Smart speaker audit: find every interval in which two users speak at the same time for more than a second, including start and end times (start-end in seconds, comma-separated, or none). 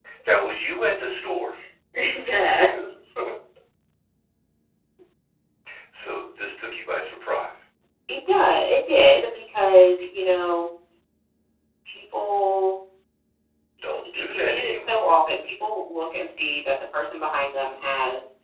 13.9-15.2